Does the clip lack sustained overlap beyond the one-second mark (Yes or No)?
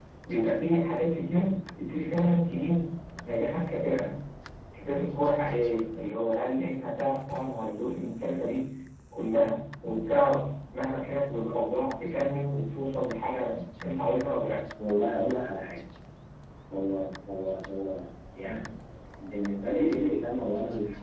Yes